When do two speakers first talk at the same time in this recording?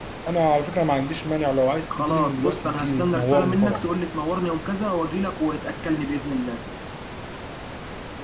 1.9 s

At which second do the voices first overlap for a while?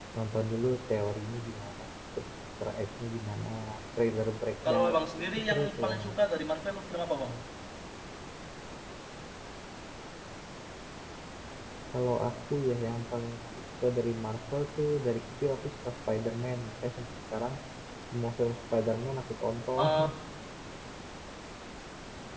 4.7 s

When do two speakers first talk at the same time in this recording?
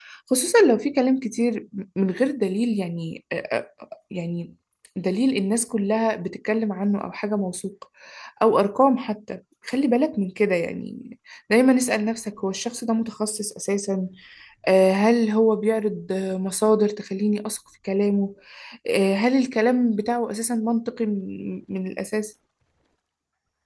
none

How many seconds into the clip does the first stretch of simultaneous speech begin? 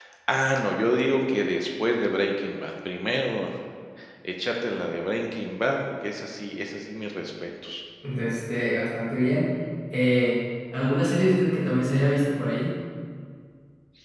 none

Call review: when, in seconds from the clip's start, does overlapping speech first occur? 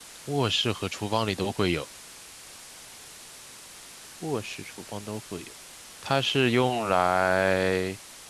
none

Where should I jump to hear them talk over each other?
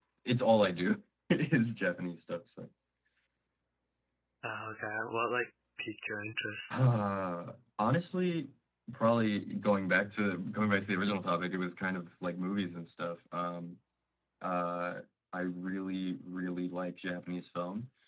none

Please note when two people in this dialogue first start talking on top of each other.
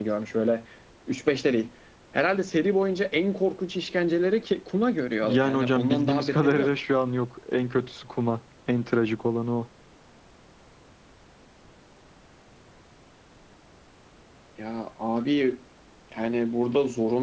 5.2 s

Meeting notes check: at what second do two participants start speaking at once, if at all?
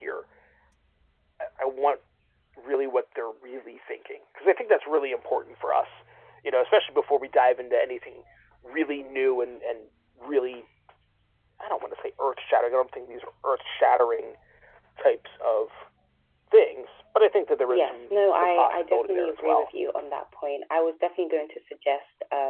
17.7 s

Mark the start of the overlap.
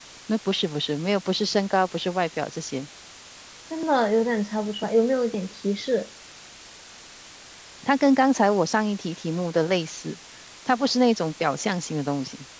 none

